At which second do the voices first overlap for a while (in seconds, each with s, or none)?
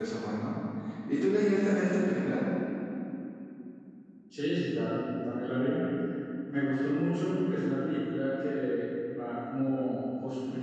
none